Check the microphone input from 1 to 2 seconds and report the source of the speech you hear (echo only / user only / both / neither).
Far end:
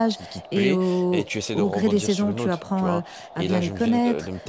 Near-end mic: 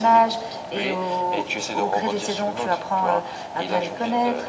echo only